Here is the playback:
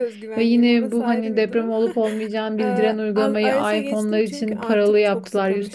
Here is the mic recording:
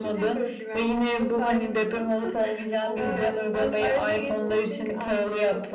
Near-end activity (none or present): present